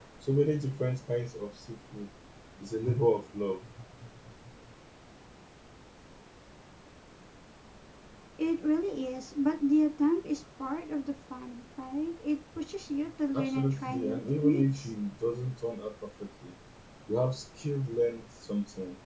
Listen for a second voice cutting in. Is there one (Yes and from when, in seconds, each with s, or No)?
Yes, from 13.3 s